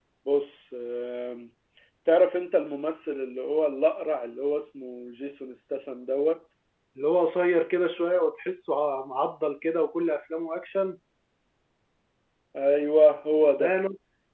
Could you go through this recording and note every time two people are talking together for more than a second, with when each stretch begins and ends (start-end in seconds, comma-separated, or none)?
none